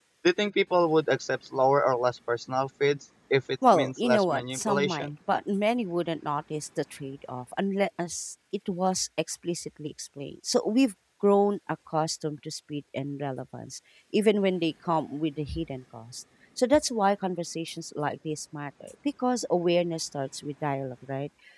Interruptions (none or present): present